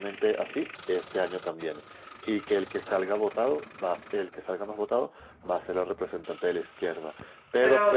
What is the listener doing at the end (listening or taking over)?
taking over